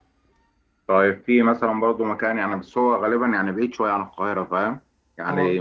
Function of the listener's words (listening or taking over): listening